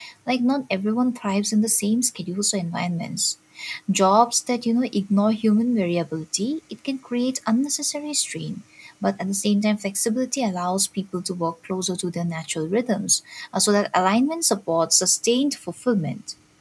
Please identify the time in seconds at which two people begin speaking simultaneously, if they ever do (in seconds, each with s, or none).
none